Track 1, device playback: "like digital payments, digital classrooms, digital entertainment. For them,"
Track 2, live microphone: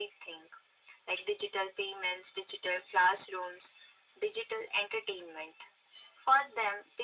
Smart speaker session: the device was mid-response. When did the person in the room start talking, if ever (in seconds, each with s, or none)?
none